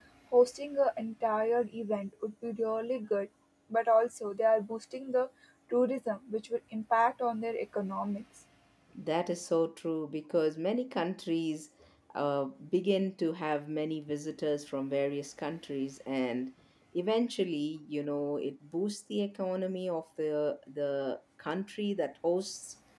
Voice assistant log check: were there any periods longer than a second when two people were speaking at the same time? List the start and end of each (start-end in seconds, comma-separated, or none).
none